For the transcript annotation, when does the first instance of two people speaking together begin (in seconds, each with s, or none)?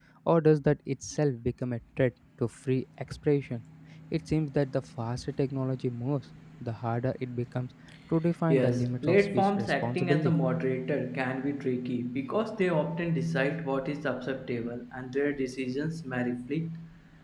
8.5 s